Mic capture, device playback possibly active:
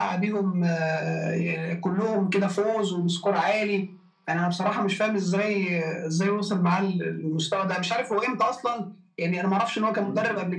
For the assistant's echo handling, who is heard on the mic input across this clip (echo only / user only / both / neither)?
echo only